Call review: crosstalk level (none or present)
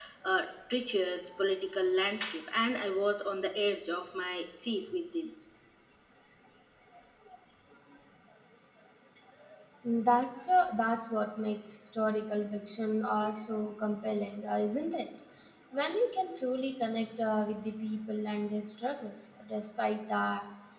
none